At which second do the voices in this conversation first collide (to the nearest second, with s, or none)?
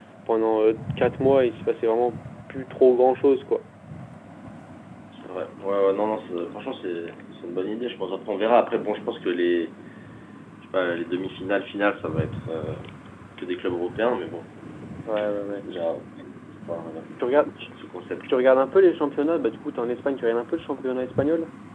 none